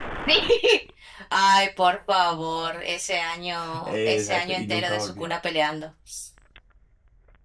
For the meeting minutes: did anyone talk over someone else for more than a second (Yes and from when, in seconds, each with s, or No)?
Yes, from 3.8 s